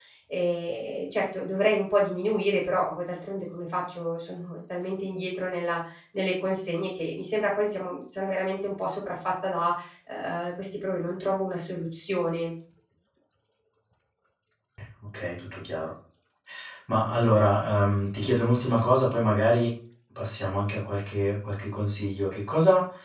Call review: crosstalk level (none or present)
none